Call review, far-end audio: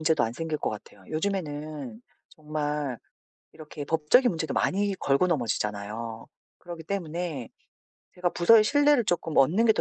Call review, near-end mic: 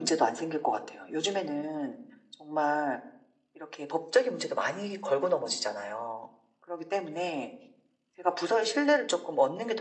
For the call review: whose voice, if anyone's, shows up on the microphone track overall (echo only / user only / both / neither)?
echo only